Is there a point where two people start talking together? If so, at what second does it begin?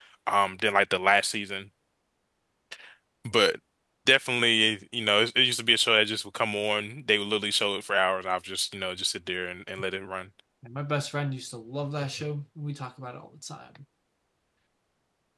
none

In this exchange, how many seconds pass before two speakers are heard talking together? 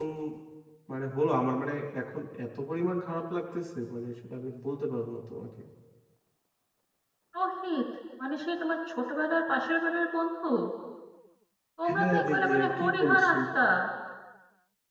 11.9 s

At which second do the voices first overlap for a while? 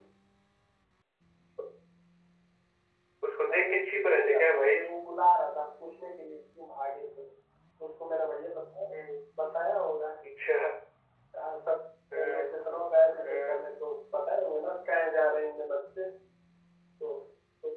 3.5 s

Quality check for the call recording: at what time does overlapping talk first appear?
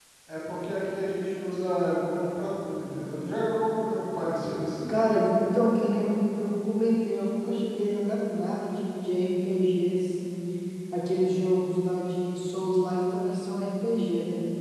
none

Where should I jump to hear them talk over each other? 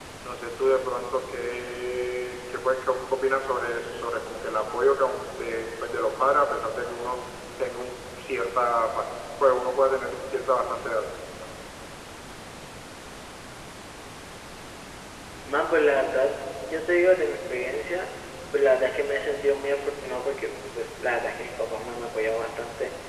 none

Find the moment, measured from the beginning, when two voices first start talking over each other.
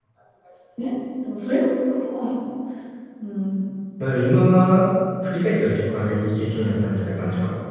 none

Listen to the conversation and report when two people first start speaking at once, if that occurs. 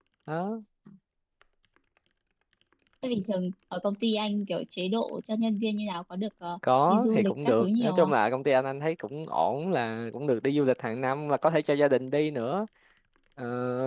6.9 s

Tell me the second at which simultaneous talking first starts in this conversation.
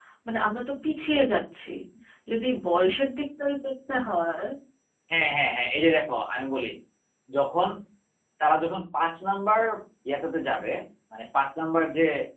none

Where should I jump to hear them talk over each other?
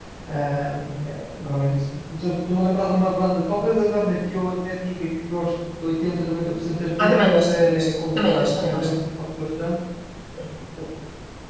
7.0 s

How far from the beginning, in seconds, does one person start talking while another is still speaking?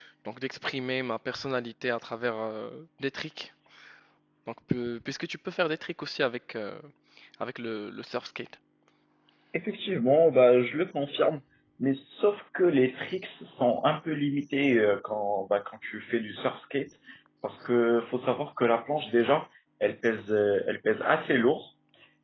none

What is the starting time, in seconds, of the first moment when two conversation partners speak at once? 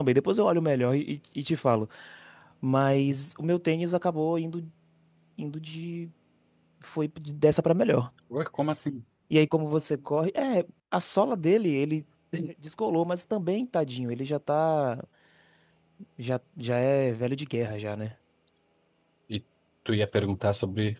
none

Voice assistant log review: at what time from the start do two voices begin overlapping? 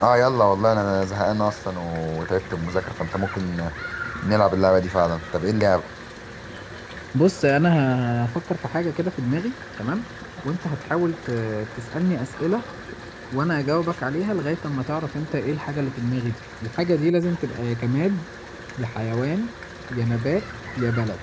none

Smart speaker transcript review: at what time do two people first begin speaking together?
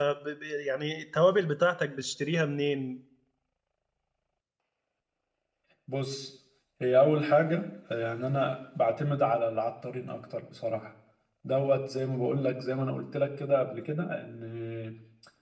none

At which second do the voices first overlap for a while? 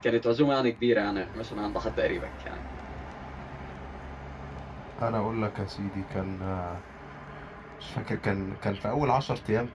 none

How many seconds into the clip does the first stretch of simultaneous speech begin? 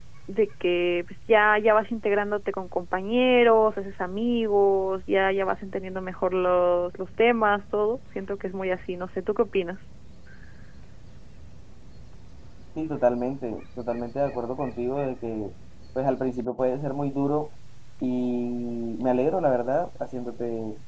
none

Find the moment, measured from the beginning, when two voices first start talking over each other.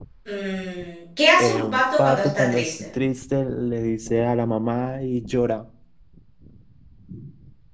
1.4 s

